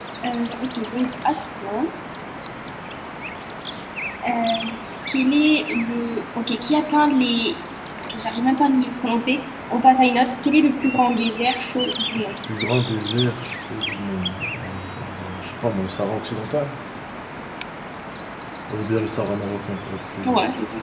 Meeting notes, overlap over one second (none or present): none